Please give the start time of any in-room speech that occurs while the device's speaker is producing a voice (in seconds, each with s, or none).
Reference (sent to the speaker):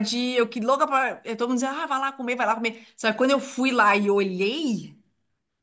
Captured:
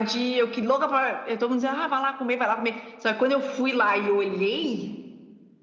none